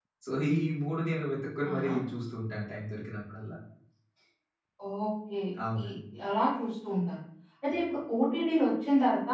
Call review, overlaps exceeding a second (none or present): none